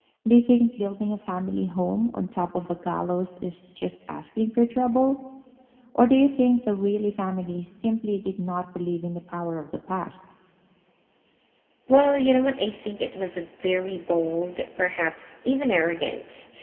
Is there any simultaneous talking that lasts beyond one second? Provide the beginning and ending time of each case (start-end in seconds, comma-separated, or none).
none